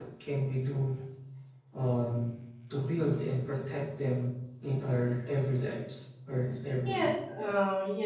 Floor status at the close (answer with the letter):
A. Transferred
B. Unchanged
A